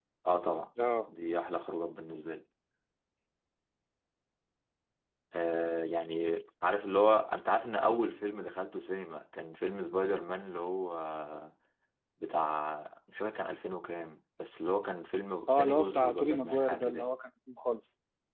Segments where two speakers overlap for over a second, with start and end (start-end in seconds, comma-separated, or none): 15.6-17.1